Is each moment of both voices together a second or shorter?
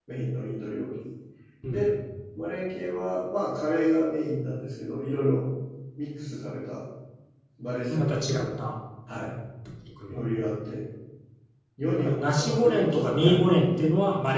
No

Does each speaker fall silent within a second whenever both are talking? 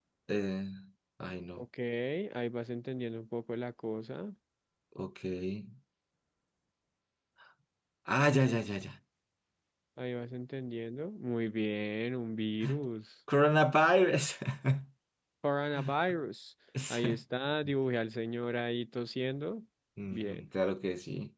Yes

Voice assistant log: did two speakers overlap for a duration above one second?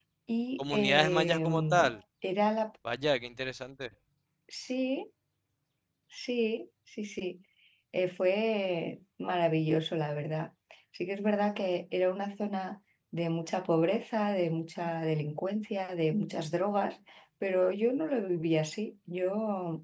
Yes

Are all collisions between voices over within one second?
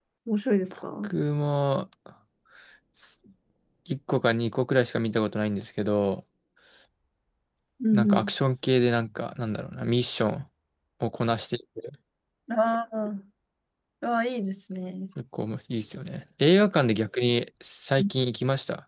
Yes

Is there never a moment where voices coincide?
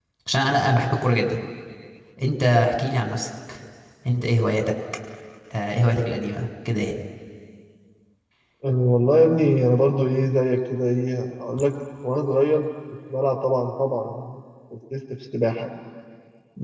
Yes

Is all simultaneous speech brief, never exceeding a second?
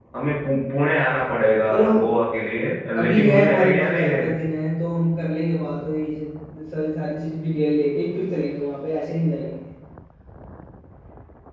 No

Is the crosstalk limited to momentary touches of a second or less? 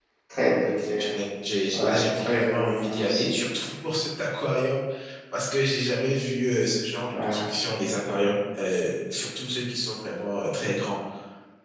No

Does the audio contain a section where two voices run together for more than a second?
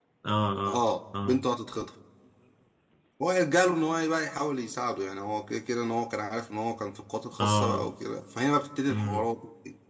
No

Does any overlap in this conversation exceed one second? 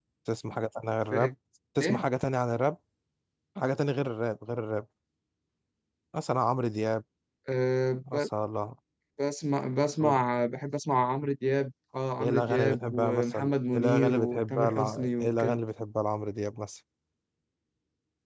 Yes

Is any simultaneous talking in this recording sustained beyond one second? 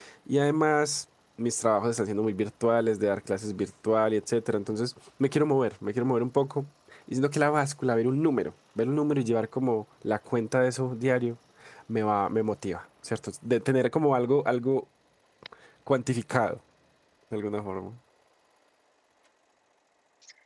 No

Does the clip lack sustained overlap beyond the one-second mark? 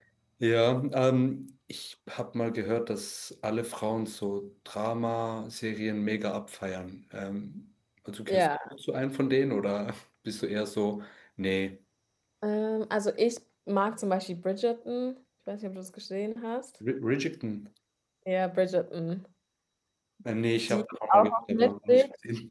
No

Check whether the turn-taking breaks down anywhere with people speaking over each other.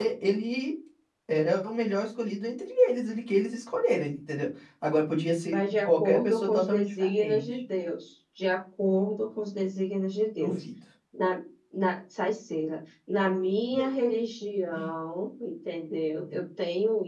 Yes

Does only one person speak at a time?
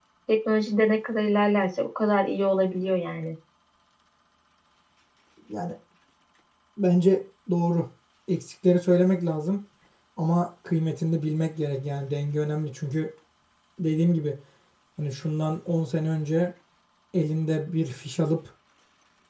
Yes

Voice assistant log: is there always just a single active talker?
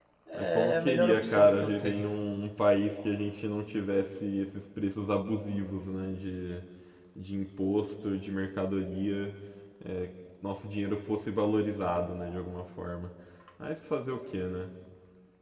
No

